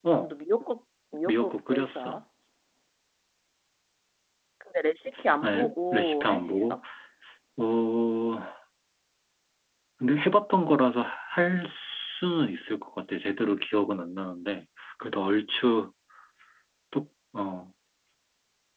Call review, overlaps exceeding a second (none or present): present